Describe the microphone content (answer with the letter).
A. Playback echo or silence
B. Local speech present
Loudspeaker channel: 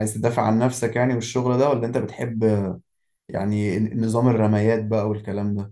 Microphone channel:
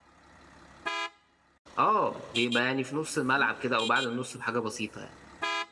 B